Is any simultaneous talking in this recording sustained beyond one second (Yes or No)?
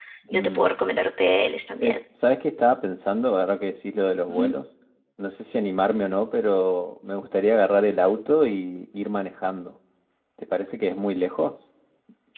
No